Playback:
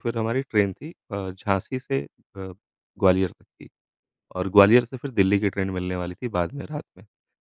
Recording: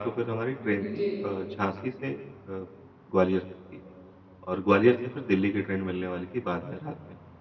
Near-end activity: present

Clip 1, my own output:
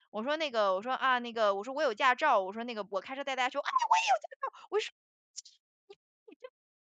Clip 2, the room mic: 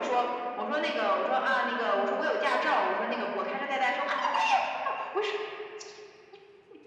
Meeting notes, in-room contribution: none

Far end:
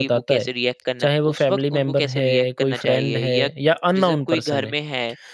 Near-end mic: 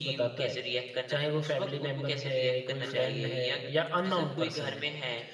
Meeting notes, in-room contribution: none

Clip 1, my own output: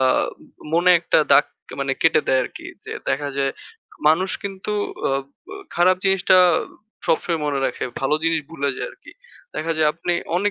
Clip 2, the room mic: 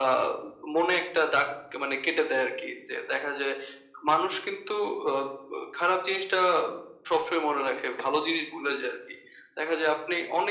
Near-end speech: none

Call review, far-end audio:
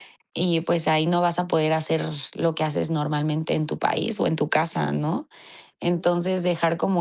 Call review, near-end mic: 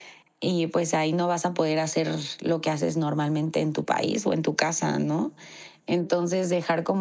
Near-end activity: none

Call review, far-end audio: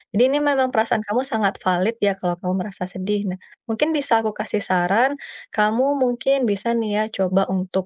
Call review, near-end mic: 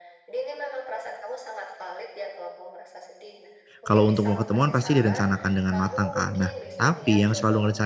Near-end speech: present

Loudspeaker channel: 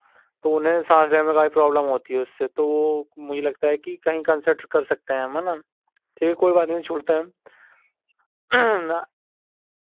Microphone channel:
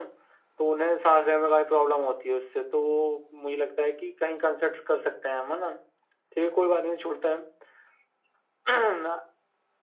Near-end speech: none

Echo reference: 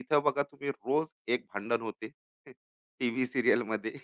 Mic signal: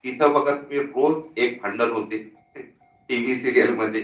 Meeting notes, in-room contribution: none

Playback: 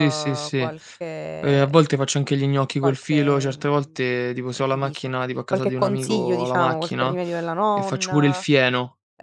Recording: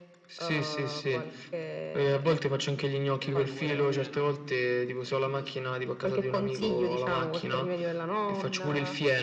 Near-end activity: present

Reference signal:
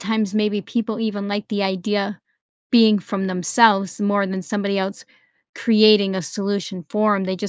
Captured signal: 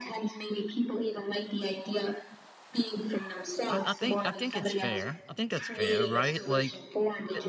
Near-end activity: present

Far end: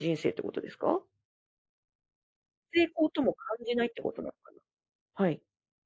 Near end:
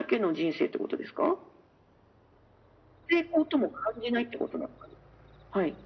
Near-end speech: none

